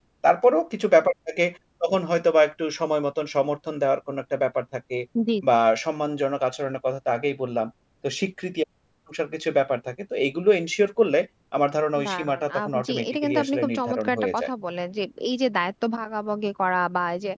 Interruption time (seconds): 12.1 s

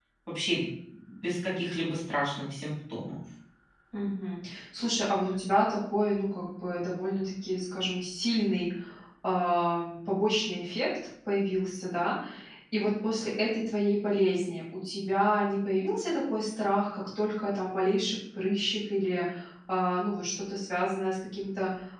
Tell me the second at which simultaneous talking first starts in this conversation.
none

